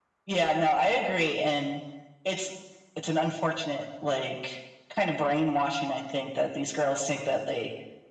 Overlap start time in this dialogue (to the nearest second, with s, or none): none